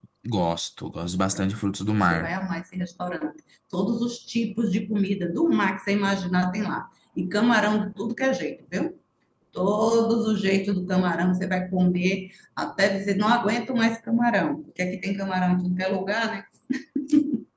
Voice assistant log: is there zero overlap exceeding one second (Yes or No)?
Yes